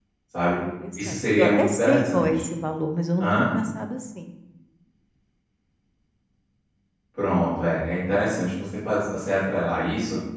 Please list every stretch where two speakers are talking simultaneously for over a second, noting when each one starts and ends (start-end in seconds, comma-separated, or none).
1.0-2.3